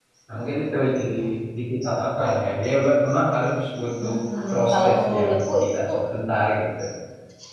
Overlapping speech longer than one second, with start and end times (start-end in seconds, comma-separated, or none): 4.5-5.9